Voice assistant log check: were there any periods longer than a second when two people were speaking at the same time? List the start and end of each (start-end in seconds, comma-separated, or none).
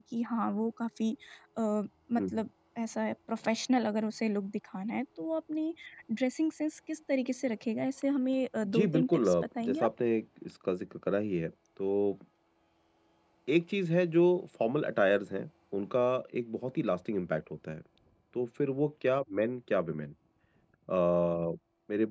8.6-9.9